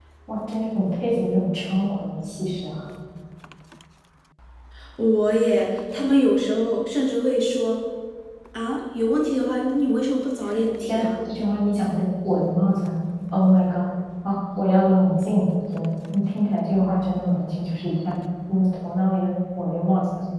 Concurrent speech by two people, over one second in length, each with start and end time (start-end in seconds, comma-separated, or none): none